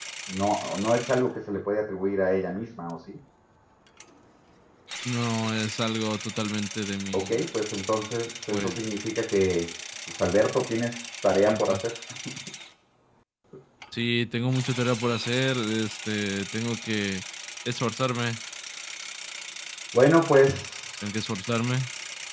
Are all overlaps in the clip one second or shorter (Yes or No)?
Yes